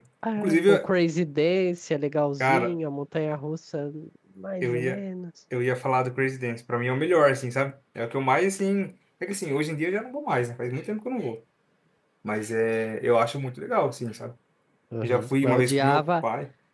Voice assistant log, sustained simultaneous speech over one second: present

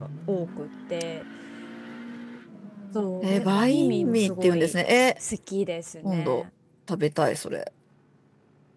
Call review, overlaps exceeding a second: present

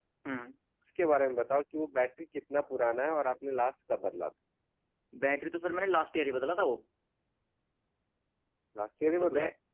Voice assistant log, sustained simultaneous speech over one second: none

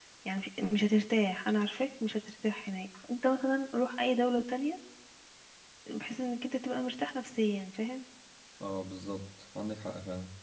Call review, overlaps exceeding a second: none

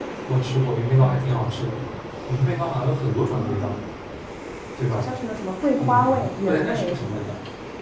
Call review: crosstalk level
present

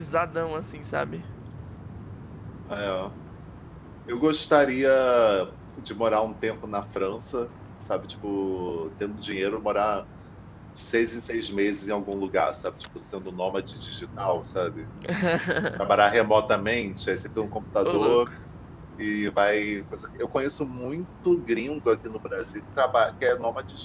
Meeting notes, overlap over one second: none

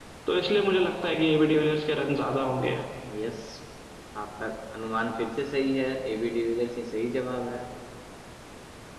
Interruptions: none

